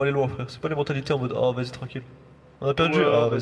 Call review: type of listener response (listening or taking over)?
taking over